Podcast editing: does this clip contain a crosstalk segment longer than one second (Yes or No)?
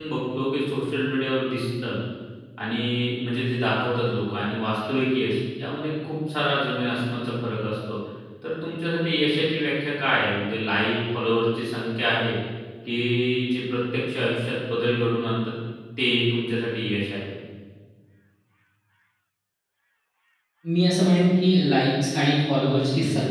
No